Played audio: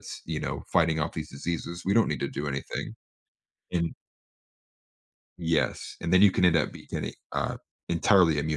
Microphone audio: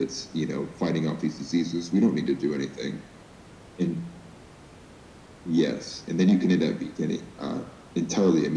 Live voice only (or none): none